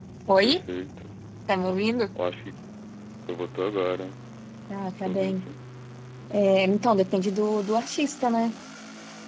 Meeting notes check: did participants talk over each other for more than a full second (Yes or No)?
No